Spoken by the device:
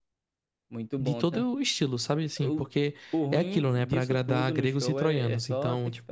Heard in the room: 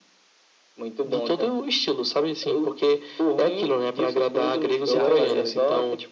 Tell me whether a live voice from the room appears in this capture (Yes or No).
Yes